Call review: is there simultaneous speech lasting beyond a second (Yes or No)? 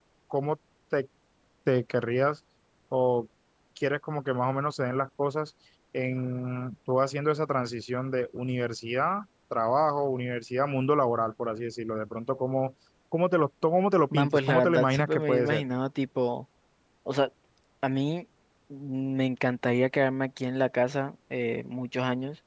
Yes